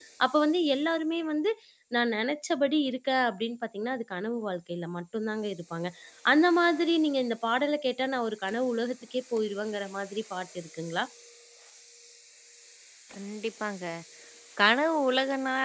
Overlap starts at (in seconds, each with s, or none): none